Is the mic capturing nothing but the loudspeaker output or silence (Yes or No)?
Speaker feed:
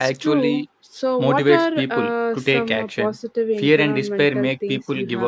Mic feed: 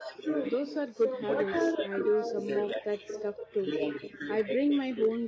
No